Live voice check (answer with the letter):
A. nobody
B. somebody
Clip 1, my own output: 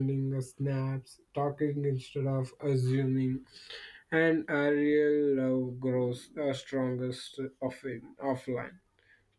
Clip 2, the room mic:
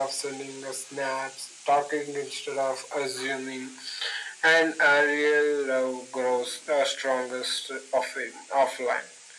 A